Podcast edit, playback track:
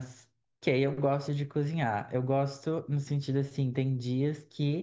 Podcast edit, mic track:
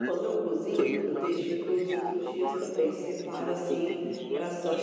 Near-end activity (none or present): present